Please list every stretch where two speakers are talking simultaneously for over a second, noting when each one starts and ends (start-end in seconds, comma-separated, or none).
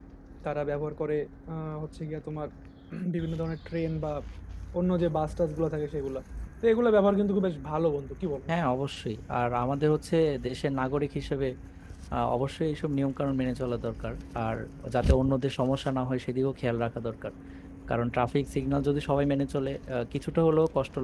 none